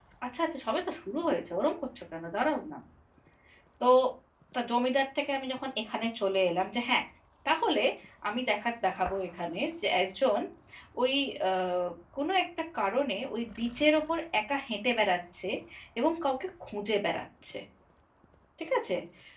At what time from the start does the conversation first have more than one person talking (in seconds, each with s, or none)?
none